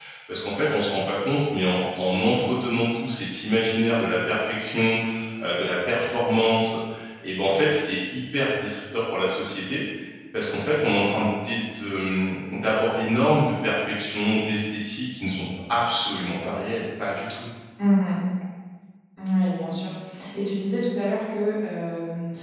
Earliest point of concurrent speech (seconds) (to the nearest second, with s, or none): none